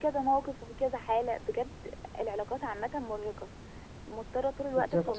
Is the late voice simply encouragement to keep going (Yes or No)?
Yes